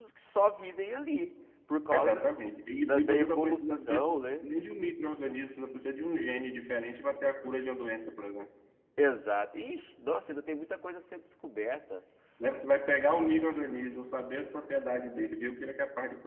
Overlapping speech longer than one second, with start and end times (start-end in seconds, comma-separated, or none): 2.9-4.4